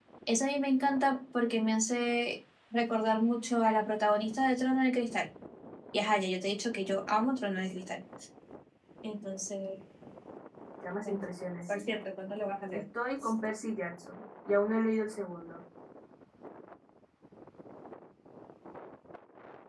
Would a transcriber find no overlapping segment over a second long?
Yes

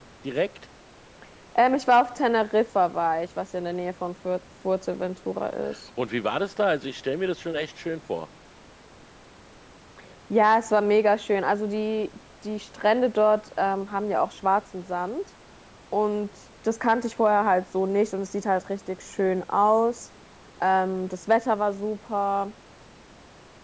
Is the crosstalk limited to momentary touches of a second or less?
Yes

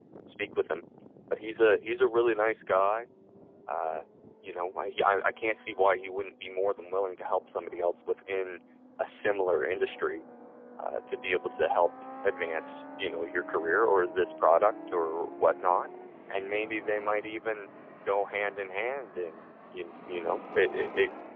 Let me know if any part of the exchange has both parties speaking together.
No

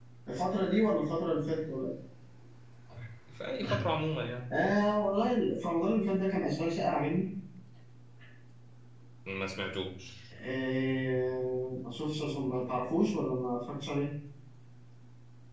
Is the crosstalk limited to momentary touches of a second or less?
Yes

